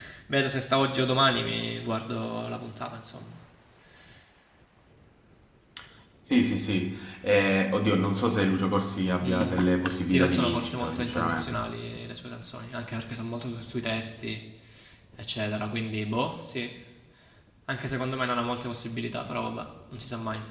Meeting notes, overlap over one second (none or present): present